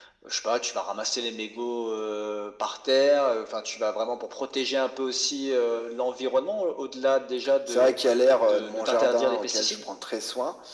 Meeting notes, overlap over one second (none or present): present